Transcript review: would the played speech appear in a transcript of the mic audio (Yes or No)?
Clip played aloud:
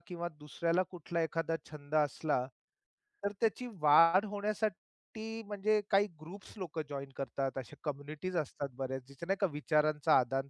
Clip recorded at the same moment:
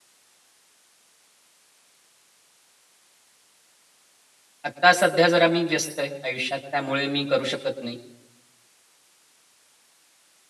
No